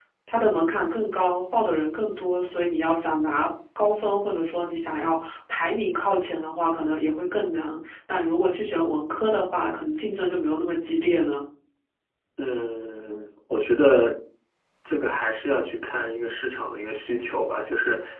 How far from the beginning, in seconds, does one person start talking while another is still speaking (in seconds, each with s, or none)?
none